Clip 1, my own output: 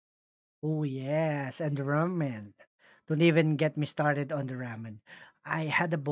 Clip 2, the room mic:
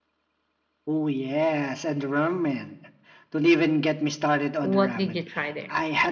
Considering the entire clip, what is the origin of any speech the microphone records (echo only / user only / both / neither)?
both